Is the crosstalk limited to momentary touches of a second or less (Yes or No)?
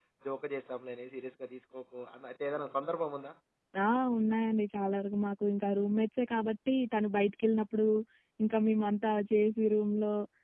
Yes